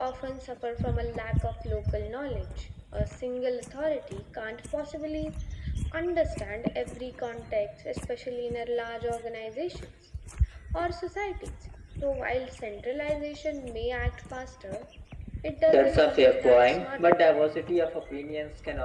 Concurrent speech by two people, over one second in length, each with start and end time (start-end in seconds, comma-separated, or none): 15.7-17.2